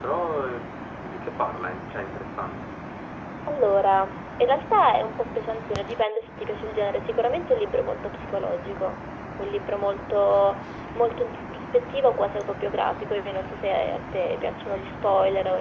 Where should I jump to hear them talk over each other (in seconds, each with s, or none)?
none